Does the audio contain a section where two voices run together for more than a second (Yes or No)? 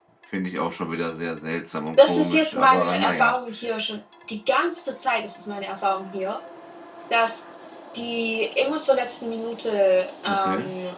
Yes